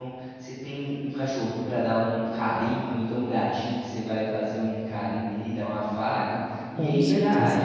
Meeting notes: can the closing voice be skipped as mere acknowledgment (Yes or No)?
Yes